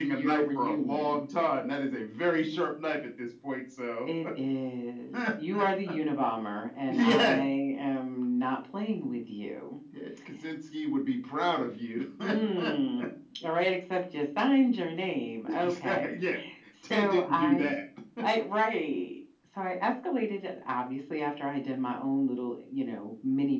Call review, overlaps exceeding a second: present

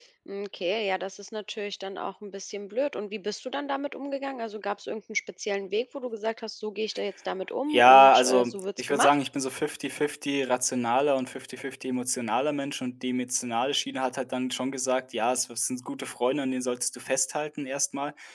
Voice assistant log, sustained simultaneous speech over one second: present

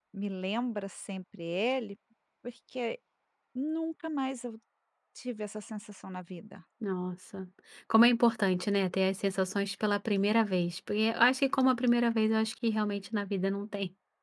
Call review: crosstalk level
none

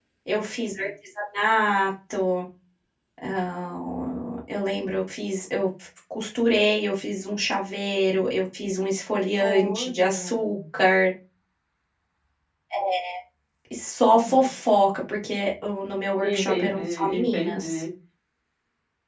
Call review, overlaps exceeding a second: present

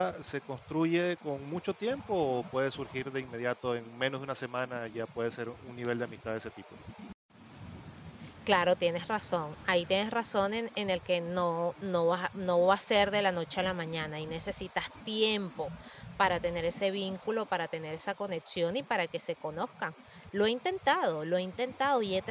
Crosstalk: none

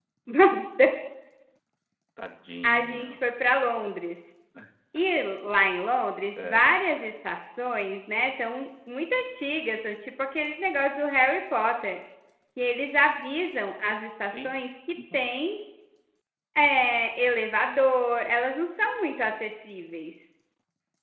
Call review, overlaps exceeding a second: none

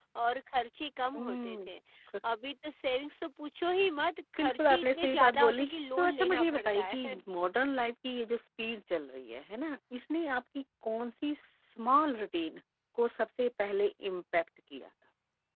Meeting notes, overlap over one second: present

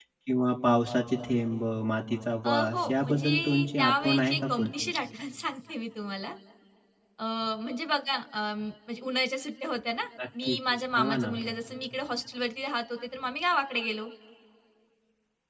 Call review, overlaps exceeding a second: present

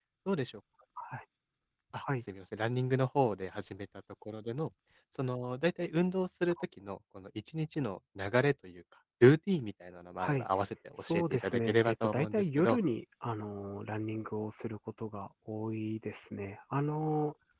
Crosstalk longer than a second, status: present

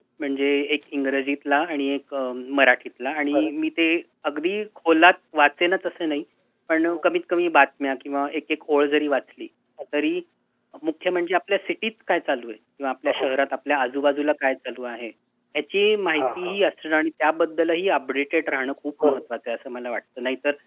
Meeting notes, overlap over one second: none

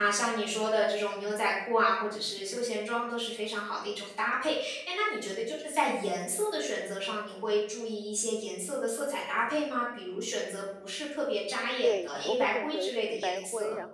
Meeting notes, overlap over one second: present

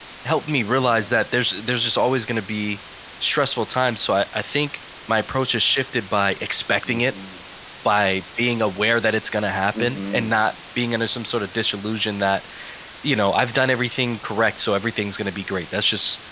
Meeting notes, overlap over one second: none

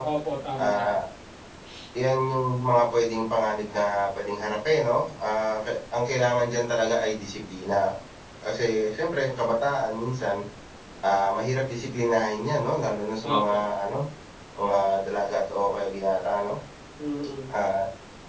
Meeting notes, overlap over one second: none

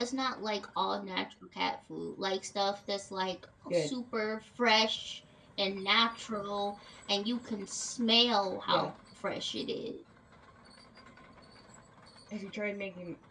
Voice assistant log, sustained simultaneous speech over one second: none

